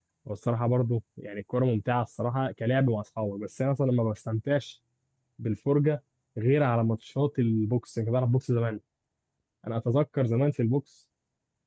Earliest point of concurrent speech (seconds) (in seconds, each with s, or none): none